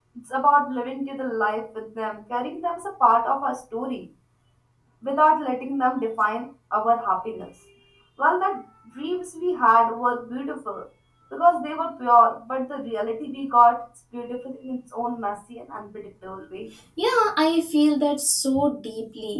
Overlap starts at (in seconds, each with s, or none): none